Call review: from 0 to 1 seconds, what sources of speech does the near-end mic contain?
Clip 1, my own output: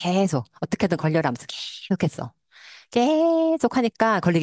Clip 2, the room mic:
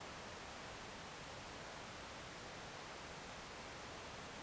neither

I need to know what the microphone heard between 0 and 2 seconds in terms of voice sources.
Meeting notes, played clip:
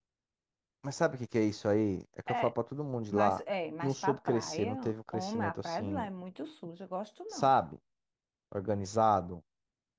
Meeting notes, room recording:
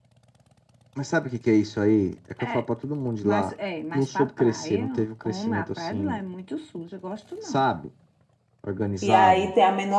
echo only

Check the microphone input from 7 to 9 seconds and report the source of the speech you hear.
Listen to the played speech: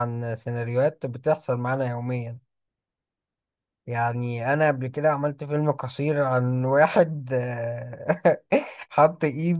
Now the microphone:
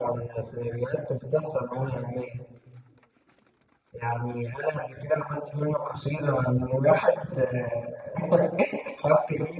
echo only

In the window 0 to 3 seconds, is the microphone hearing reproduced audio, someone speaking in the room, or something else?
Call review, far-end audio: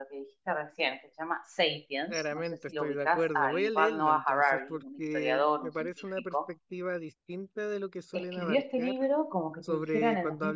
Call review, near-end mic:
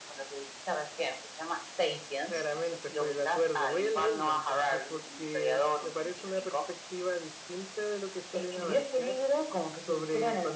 echo only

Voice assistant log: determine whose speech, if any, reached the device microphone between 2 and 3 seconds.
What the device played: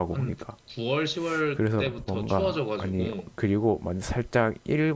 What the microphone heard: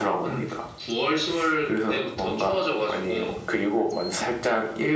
echo only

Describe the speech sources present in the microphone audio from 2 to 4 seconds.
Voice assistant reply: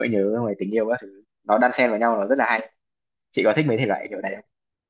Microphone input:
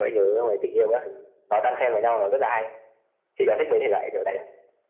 echo only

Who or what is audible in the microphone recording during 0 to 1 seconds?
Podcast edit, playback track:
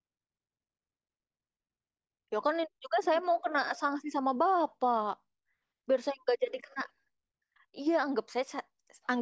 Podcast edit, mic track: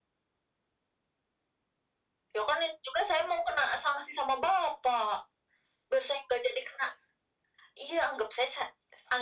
neither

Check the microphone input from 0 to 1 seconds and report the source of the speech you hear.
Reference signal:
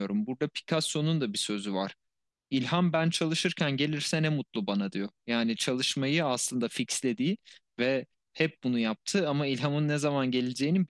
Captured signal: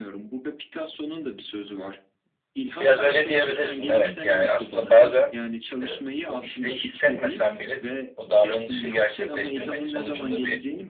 echo only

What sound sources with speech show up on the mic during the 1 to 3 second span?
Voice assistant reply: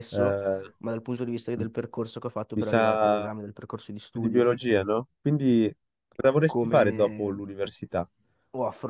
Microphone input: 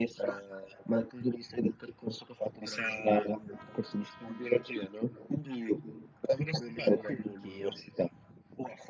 echo only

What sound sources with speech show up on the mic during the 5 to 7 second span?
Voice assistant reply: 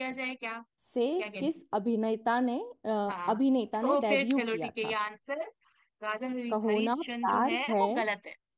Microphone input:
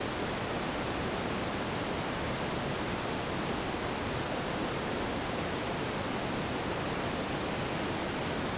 neither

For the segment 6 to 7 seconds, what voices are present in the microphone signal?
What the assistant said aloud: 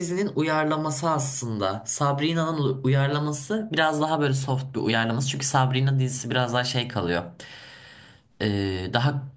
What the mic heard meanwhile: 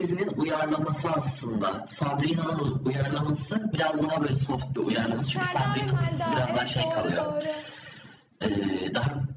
both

